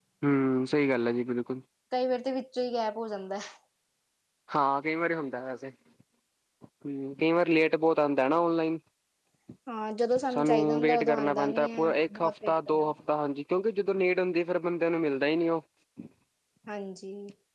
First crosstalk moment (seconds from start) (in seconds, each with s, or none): 10.3 s